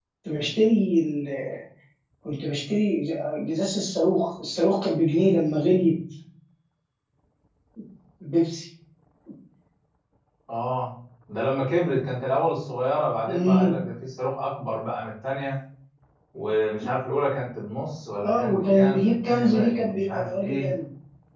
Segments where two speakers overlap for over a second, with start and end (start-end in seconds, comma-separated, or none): 18.2-20.7